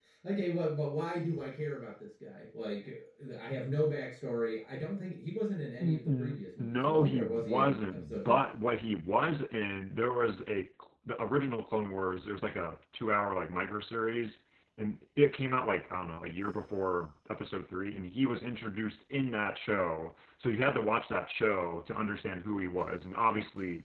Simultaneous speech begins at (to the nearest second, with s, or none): 6 s